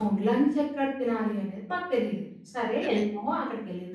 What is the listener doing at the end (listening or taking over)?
listening